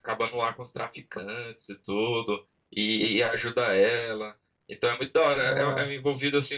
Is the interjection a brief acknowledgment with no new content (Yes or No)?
Yes